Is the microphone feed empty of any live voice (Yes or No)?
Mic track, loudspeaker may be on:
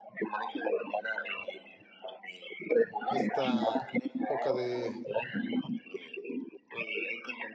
No